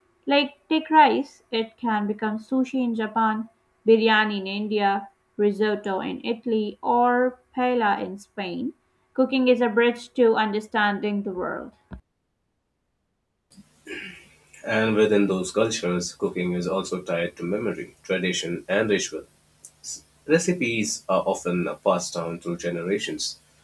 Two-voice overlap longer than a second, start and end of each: none

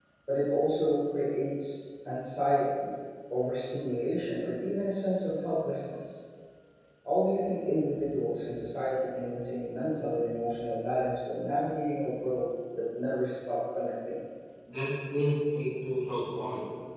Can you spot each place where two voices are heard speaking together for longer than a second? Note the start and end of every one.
none

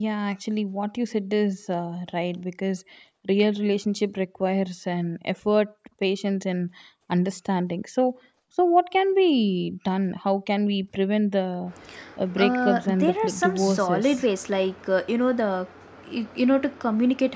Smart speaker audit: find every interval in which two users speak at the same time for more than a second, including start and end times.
12.4-14.2

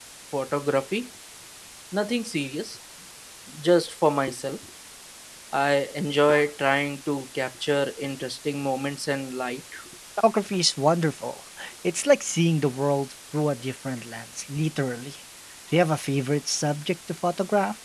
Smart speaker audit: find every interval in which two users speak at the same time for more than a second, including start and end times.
none

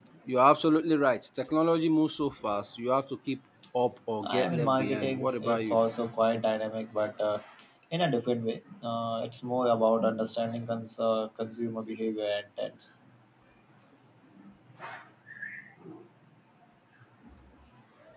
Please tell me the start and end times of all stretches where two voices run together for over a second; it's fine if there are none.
4.2-5.8

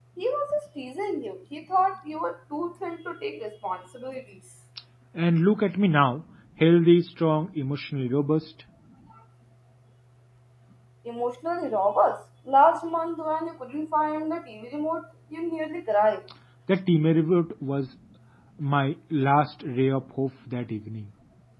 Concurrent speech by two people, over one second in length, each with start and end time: none

